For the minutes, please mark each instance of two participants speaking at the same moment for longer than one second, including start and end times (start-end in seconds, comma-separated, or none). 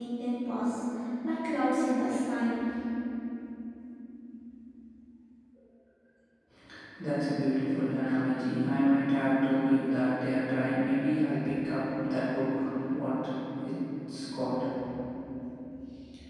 none